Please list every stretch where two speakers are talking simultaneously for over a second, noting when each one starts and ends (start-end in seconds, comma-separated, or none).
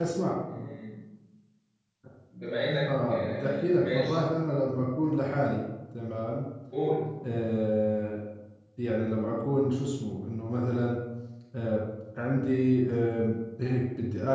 2.9-4.2